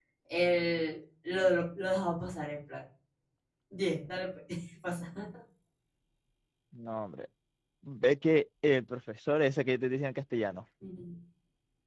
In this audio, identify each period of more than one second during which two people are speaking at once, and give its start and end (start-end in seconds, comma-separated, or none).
none